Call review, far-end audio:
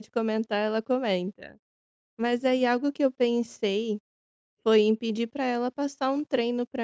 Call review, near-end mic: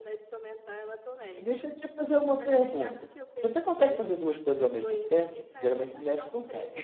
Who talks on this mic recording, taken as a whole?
both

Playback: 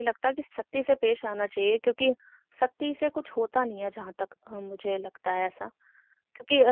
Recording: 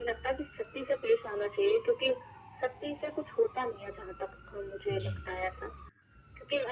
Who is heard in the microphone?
both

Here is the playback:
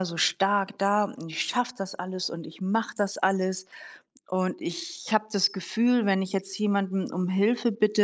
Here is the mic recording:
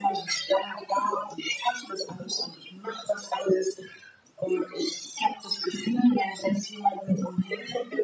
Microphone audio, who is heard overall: echo only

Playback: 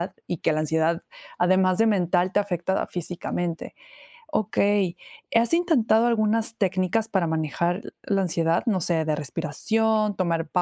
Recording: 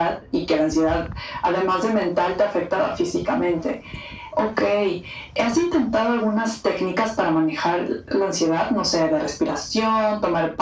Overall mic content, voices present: echo only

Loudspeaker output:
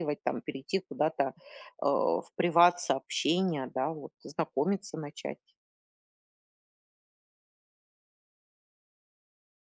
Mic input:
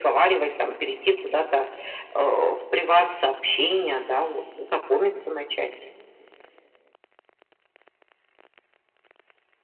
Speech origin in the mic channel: echo only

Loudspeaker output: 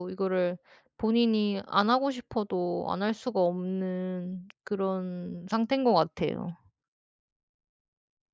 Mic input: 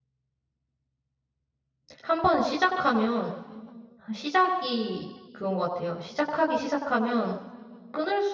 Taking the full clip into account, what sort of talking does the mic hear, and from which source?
user only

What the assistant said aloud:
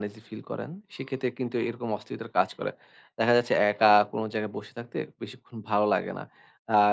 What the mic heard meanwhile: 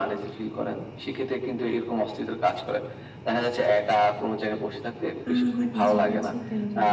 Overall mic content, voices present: both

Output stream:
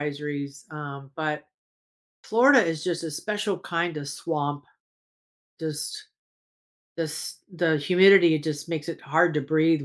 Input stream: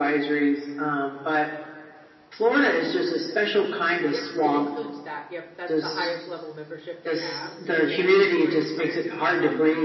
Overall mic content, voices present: both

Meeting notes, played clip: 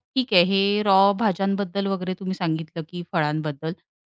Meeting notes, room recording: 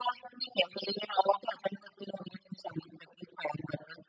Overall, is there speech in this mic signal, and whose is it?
echo only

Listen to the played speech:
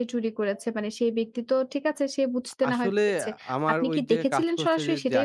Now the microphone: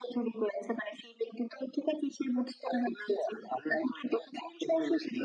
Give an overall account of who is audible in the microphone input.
echo only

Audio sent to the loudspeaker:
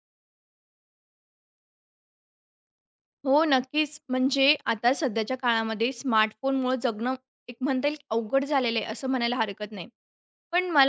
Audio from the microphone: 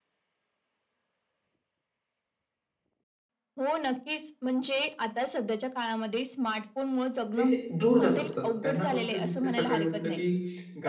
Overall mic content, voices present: both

